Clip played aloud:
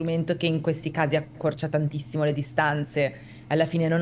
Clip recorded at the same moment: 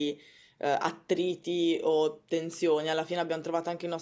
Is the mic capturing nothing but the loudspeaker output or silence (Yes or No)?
No